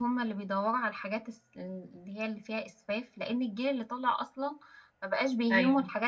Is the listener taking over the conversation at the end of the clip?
No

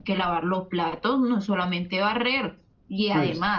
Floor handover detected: No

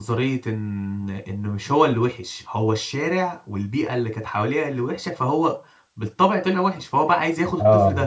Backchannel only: Yes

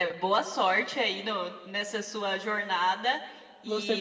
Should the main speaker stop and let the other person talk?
No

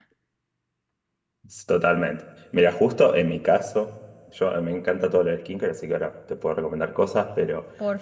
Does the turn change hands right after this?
No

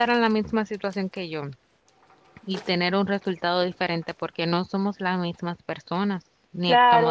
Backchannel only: No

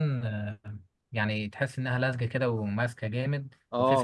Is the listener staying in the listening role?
No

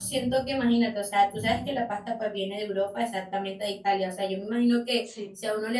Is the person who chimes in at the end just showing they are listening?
Yes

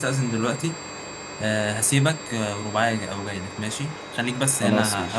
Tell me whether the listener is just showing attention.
Yes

